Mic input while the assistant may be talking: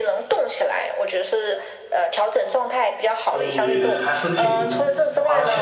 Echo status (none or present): present